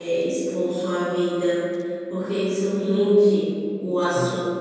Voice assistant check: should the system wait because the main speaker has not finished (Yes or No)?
Yes